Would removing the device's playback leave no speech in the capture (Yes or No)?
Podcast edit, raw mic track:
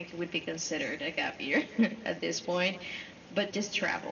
Yes